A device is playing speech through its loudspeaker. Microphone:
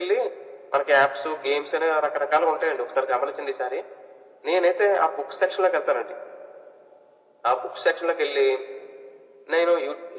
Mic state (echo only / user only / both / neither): echo only